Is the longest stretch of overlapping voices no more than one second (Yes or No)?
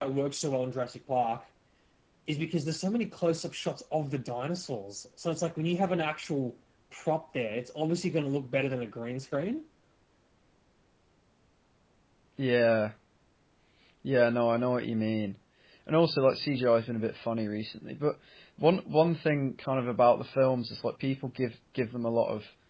Yes